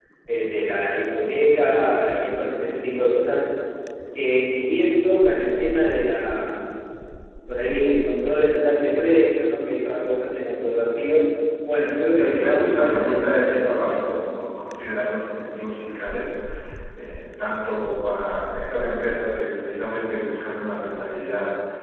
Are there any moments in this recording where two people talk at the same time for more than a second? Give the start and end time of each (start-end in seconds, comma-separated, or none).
12.2-14.3